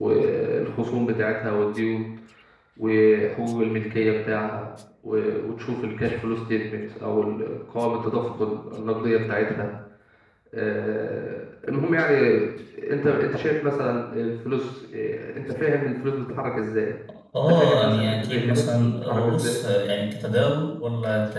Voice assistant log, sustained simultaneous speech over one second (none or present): present